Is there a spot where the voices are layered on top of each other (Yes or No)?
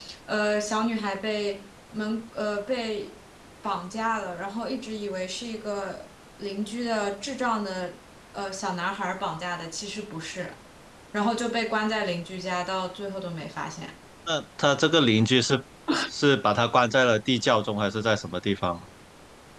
No